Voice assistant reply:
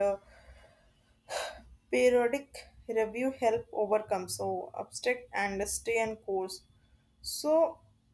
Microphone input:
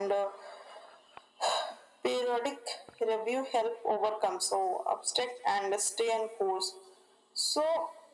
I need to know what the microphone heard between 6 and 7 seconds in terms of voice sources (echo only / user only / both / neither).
echo only